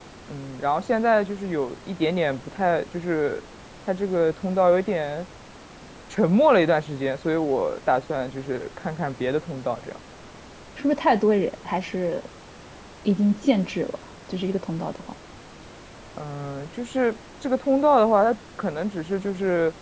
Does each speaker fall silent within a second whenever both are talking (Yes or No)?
Yes